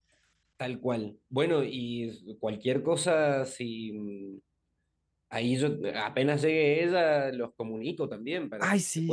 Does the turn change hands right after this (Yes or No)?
Yes